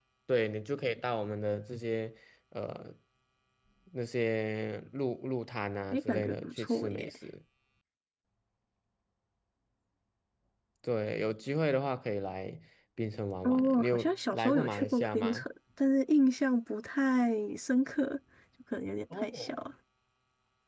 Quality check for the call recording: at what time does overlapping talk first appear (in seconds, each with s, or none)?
5.9 s